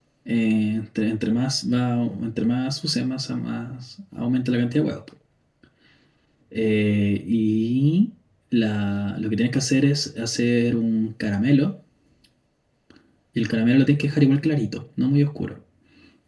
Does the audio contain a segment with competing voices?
No

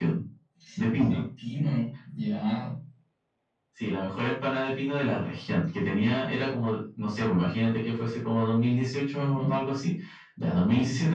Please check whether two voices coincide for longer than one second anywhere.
No

